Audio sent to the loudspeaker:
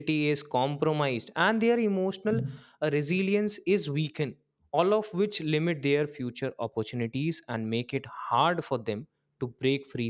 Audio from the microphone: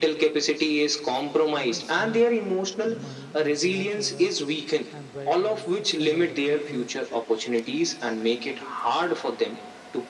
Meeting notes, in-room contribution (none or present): present